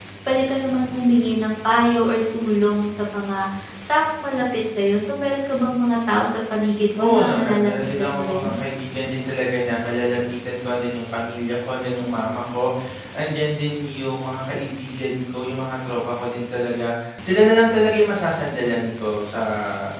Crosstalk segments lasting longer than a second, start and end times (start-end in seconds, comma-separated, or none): 6.9-8.5